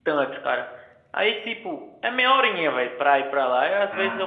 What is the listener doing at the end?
listening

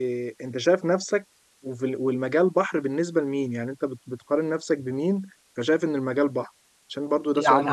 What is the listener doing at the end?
taking over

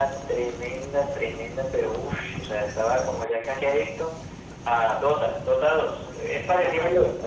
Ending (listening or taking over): taking over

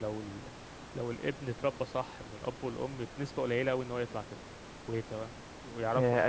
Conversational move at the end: taking over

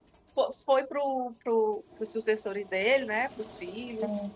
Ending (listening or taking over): listening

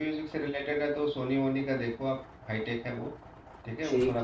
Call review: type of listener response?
listening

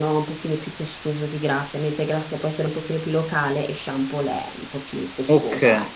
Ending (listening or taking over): taking over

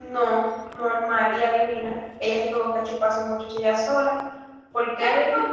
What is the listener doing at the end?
taking over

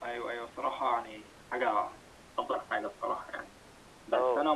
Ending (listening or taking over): listening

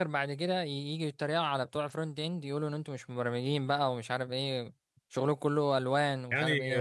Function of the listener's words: taking over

